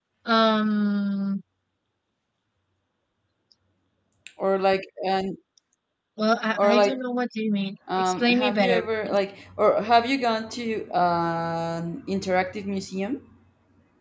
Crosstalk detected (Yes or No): Yes